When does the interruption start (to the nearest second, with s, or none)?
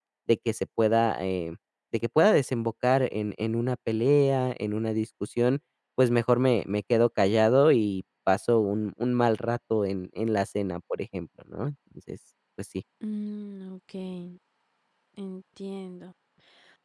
none